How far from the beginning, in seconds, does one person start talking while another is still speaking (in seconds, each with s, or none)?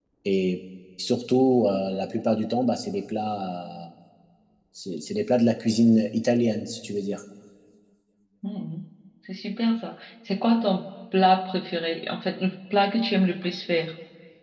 none